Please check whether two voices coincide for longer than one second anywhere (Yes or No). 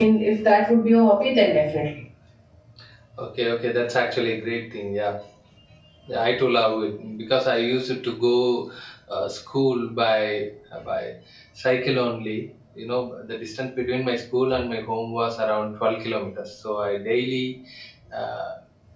No